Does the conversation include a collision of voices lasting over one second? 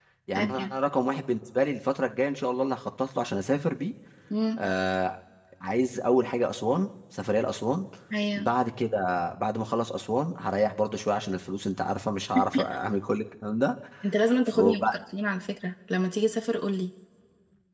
No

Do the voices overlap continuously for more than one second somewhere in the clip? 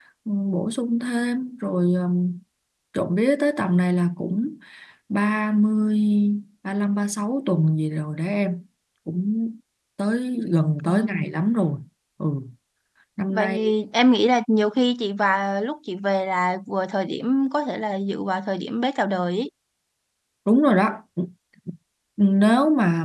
No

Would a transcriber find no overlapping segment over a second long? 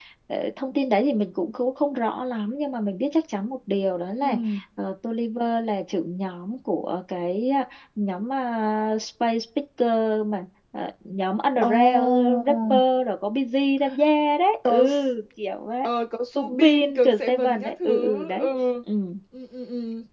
No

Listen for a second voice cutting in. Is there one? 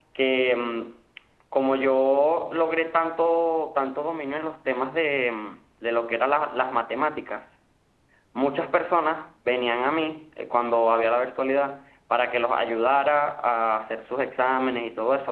No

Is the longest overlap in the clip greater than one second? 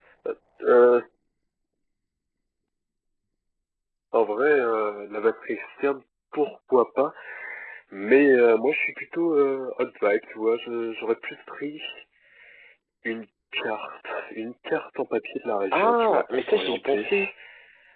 Yes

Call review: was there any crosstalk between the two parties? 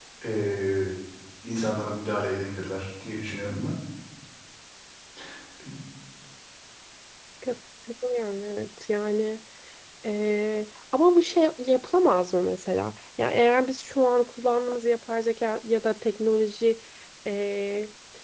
No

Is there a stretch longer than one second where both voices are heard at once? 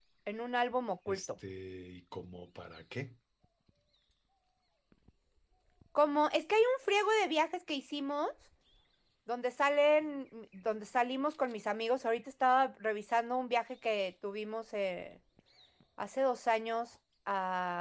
No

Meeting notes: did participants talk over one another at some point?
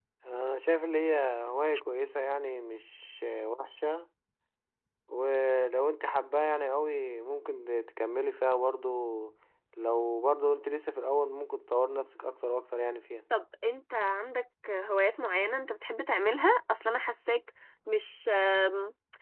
No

